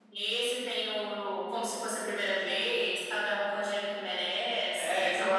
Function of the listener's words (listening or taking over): taking over